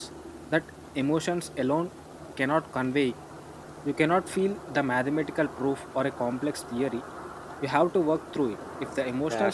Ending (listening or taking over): taking over